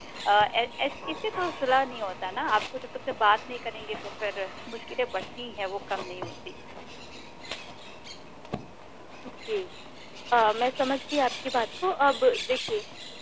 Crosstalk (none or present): none